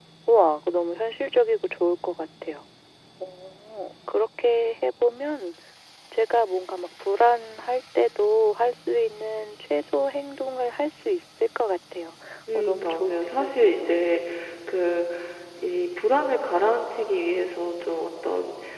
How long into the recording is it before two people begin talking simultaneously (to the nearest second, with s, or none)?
12 s